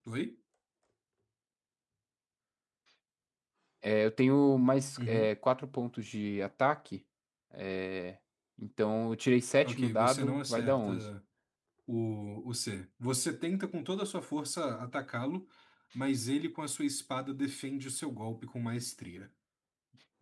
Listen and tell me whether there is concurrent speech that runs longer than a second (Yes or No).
Yes